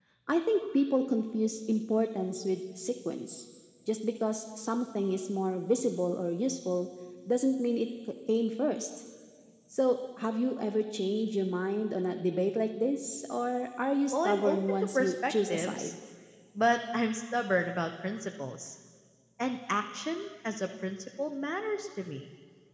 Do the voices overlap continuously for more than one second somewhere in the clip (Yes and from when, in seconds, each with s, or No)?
Yes, from 14.1 s